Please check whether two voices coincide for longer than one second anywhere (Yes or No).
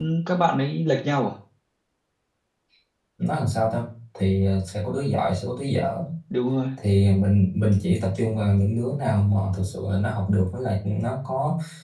No